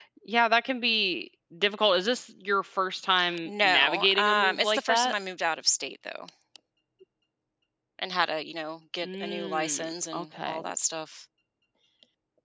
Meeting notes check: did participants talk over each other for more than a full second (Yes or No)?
Yes